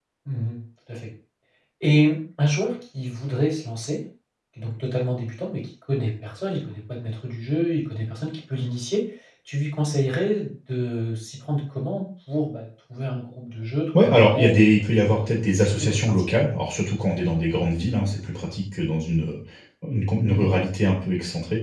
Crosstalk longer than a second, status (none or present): present